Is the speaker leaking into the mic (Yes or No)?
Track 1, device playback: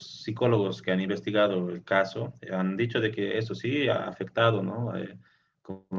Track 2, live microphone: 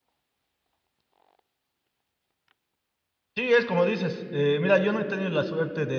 No